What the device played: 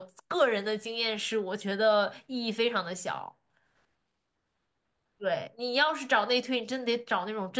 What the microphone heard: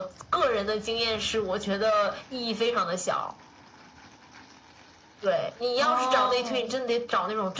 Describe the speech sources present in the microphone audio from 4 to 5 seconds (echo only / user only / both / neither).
neither